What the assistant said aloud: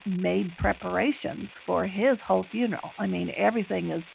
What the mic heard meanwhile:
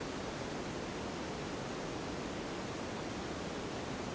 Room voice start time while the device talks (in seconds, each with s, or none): none